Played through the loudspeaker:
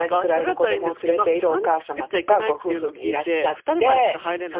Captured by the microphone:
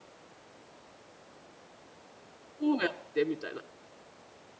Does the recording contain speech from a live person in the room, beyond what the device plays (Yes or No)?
Yes